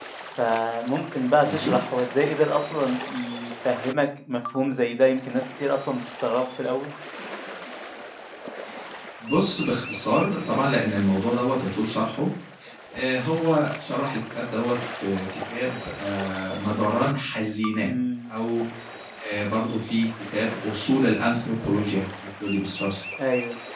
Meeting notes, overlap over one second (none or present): none